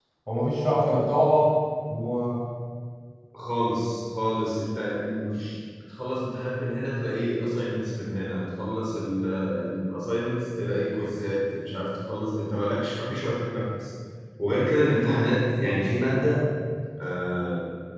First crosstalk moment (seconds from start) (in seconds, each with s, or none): none